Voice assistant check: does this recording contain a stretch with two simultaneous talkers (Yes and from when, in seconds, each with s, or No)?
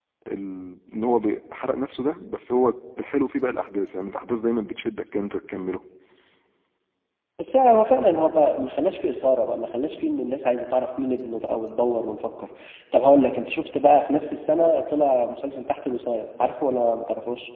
No